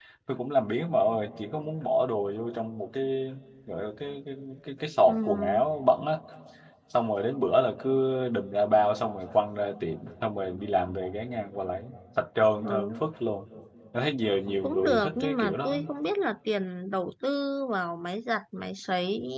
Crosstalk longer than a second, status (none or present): present